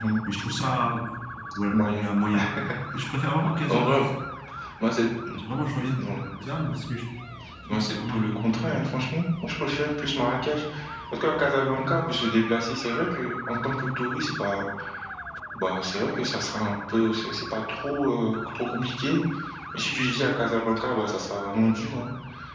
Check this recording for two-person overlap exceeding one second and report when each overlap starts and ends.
7.7-9.0

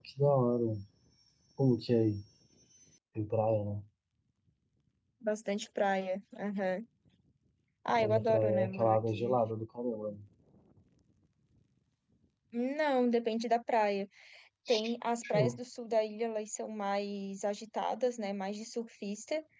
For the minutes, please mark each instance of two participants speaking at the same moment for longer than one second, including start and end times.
8.0-9.4

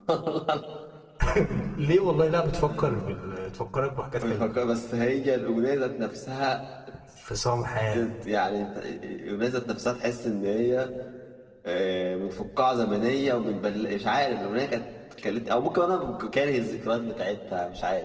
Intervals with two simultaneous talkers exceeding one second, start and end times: none

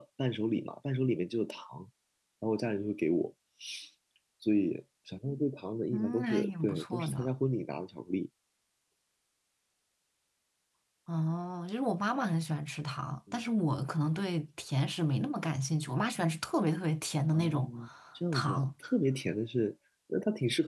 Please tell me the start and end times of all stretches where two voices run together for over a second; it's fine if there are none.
5.9-7.3

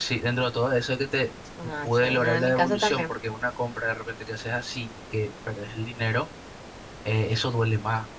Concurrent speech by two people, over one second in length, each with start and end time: 1.8-3.1

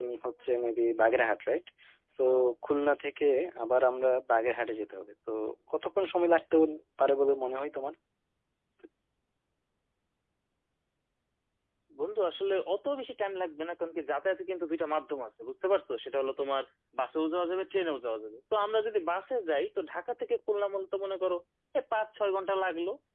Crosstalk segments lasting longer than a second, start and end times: none

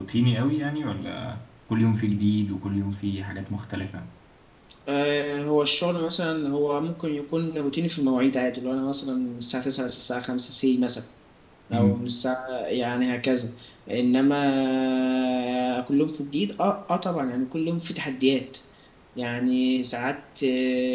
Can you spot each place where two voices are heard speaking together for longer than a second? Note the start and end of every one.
none

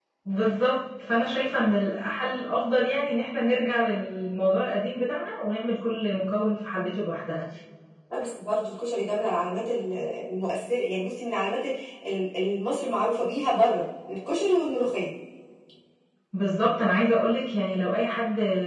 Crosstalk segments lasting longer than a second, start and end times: none

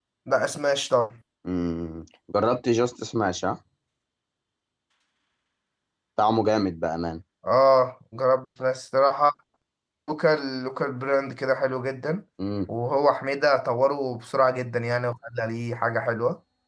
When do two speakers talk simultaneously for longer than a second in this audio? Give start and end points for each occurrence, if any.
none

